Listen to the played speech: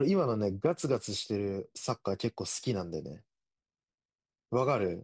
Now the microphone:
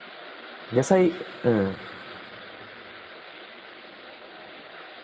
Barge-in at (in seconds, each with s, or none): 0.7 s